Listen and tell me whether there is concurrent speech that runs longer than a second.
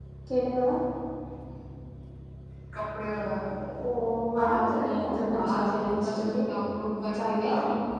Yes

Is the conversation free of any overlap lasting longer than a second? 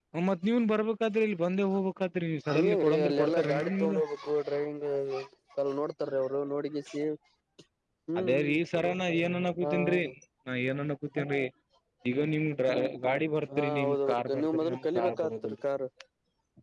No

